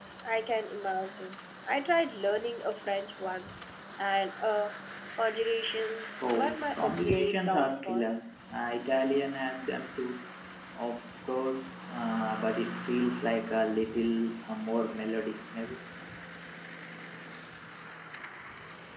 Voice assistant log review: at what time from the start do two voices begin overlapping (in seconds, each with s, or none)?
6.2 s